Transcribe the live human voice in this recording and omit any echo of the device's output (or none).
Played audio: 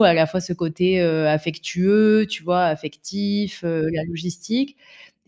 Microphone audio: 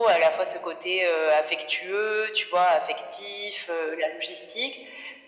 none